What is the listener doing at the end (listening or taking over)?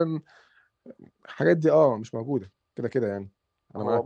taking over